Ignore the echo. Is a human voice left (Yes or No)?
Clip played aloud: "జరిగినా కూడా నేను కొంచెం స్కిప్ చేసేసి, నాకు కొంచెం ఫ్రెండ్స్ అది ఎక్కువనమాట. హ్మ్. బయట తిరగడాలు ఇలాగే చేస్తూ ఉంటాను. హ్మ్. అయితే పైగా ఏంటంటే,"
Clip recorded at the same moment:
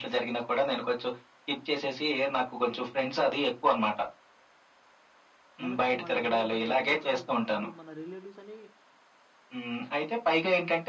Yes